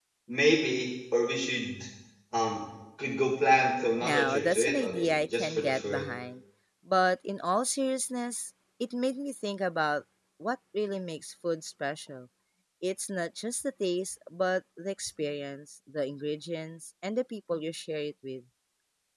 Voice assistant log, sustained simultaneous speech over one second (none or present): present